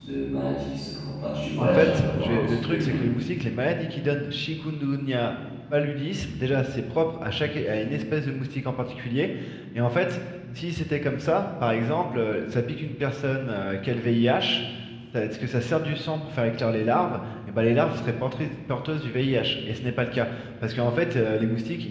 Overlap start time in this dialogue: 1.6 s

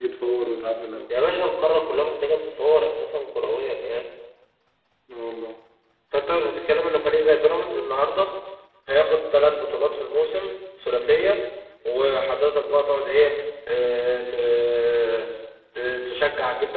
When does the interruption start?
none

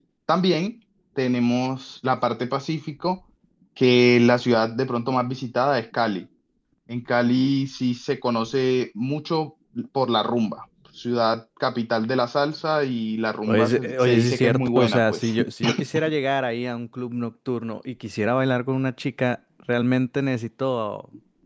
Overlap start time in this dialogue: 13.5 s

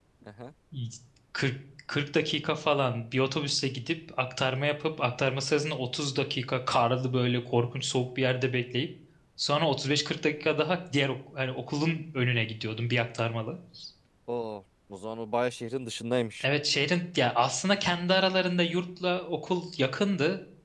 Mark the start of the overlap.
none

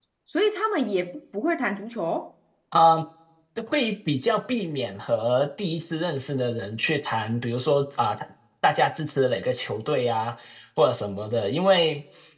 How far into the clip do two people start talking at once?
none

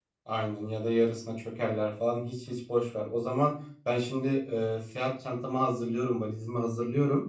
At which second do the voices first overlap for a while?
none

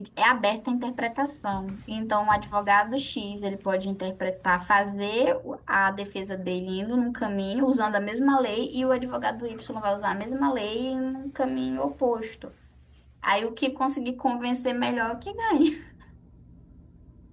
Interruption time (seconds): none

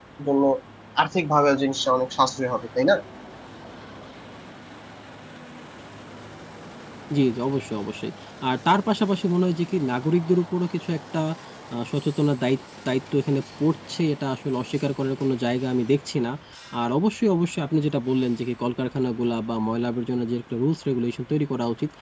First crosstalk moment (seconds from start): none

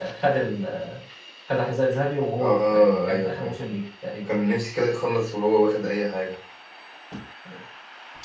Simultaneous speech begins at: 2.4 s

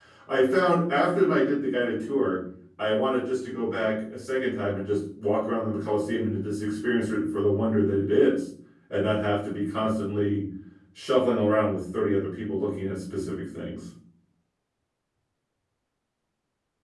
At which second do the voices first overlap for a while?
none

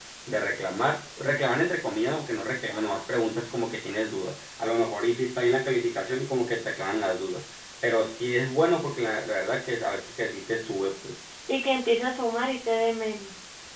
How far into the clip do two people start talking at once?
none

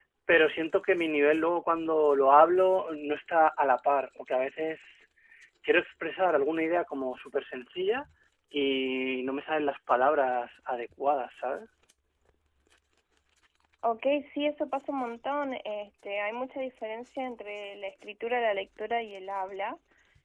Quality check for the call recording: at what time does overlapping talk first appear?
none

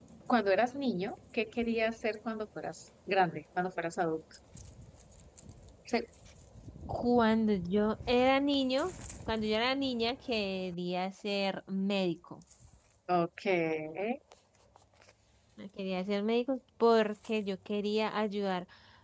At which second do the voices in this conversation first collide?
none

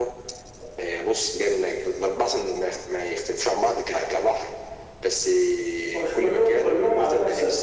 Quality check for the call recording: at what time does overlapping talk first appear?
5.9 s

